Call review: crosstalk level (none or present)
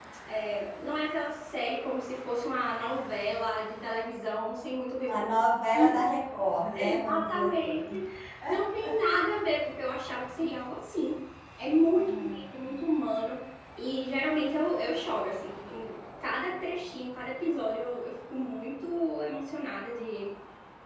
present